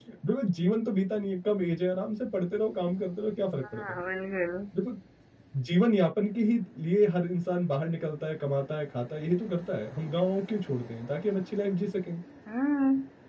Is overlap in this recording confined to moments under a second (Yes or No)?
Yes